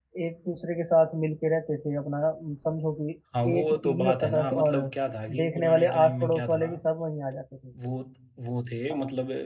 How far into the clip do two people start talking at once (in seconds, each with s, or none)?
3.6 s